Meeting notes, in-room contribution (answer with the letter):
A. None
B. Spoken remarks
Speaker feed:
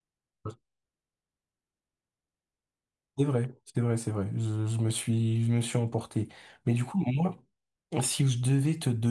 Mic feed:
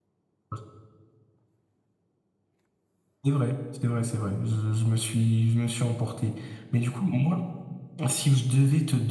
A